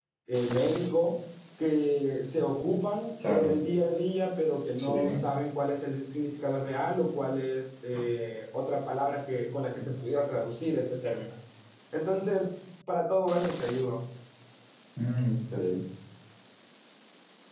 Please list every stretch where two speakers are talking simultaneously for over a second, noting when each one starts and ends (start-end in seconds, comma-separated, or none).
none